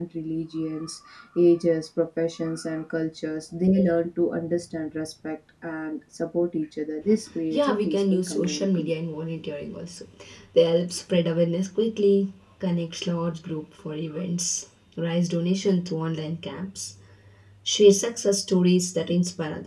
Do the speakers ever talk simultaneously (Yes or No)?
Yes